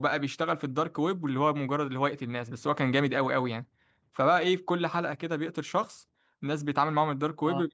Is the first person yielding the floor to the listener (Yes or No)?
No